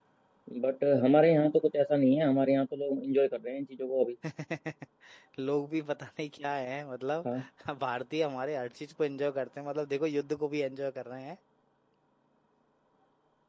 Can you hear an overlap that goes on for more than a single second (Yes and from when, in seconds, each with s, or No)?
No